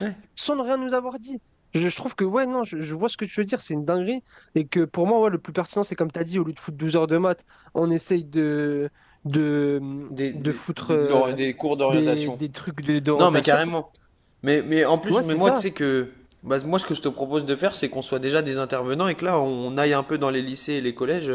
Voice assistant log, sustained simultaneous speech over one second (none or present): present